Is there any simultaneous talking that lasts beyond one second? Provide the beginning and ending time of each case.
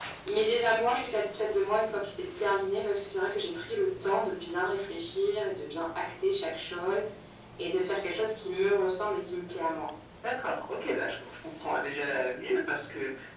none

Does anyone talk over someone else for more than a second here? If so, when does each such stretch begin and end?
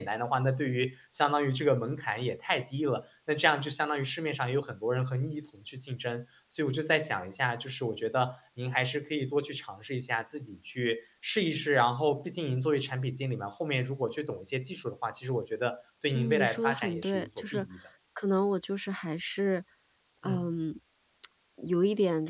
16.1-17.7

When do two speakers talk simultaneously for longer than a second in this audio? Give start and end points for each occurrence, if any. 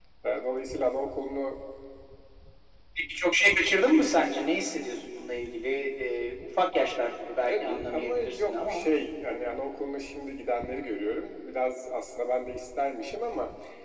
7.5-8.9

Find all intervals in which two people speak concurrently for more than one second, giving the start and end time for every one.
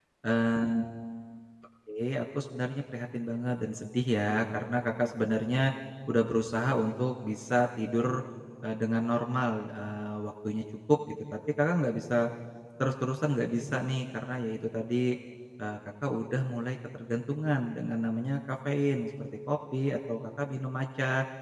none

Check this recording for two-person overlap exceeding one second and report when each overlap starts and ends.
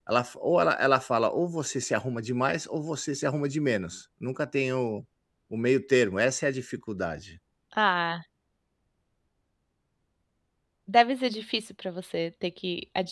none

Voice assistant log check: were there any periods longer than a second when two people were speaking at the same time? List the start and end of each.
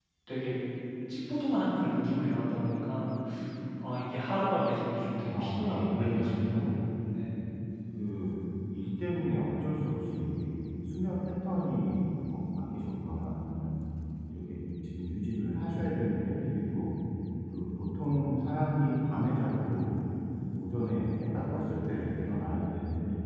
5.2-6.8

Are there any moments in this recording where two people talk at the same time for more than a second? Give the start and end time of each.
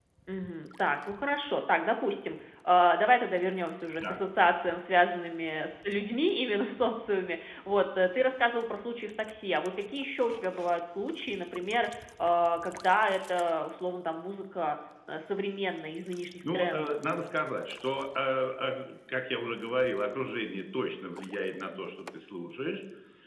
none

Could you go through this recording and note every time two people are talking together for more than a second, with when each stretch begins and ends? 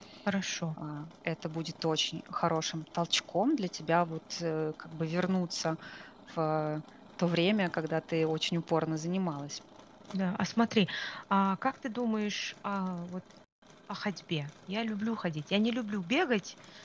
none

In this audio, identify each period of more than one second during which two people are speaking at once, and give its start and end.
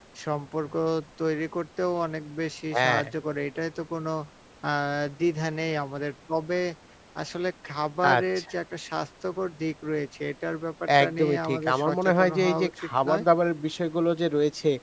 11.0-13.2

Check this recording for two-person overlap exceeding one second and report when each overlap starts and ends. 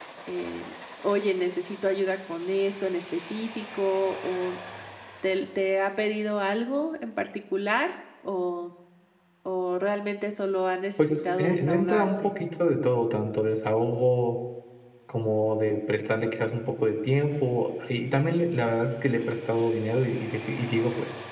11.0-12.3

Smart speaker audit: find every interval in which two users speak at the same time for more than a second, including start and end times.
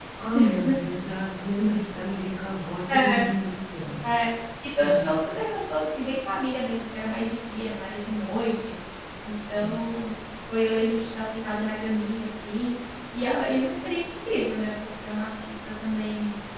none

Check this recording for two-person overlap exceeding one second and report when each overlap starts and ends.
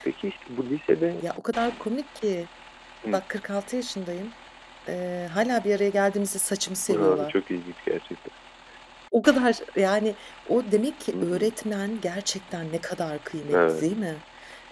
none

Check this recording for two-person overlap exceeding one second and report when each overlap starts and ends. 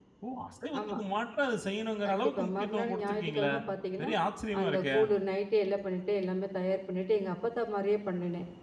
2.1-3.5

